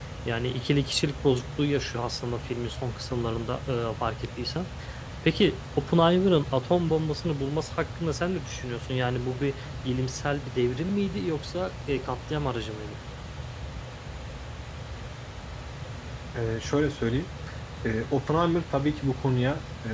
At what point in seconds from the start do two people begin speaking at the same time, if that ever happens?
none

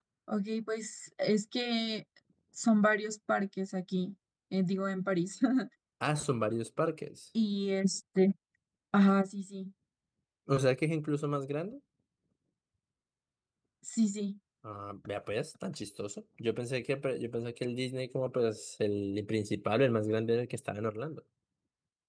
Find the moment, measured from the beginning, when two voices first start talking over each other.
none

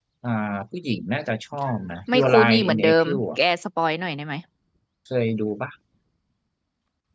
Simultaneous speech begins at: 2.1 s

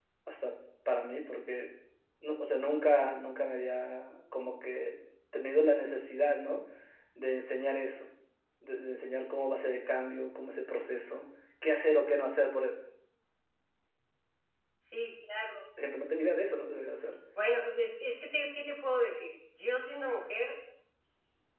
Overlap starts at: none

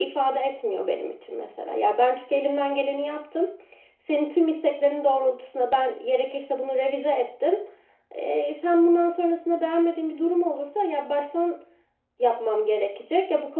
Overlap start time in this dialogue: none

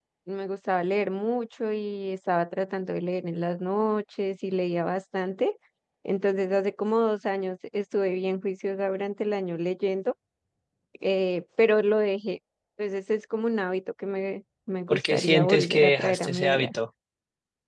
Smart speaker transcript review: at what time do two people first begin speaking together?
14.9 s

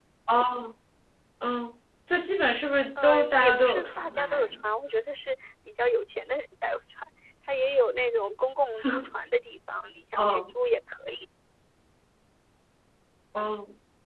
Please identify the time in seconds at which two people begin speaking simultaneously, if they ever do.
3.0 s

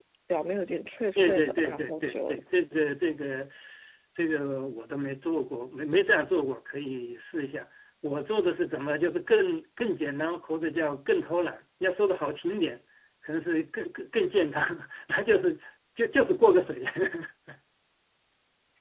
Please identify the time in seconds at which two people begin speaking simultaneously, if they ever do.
1.2 s

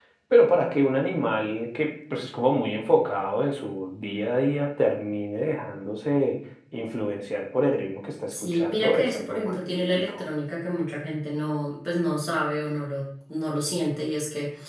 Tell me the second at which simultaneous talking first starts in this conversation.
8.3 s

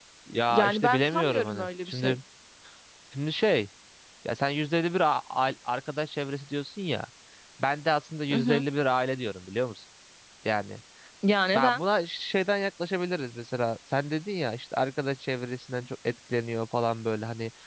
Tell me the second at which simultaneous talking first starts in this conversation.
0.5 s

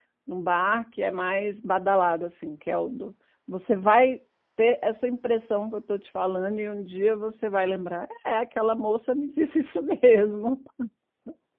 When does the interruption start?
none

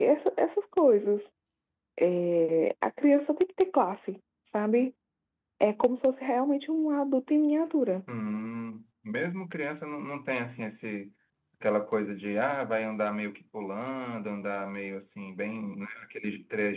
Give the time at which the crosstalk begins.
none

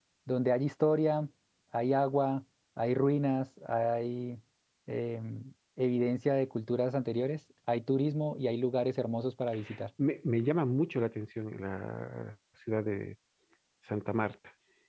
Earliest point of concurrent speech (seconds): none

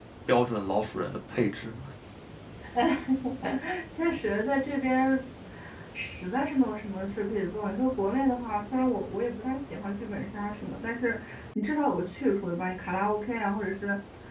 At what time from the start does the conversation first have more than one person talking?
none

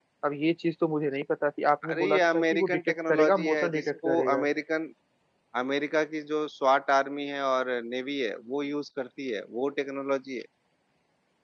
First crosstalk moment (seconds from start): 1.8 s

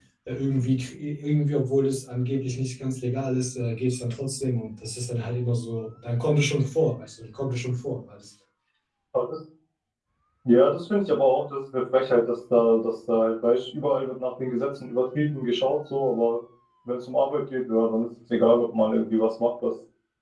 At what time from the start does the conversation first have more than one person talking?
none

